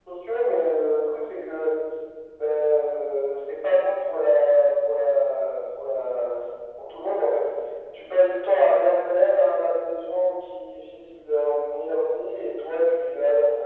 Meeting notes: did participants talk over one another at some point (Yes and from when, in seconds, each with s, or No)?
No